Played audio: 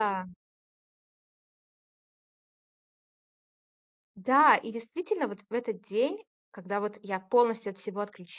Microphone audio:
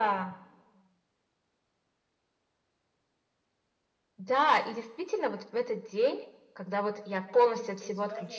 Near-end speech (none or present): present